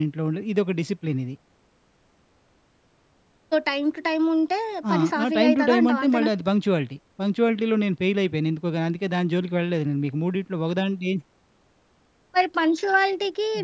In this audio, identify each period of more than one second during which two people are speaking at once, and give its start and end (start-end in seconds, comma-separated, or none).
4.9-6.3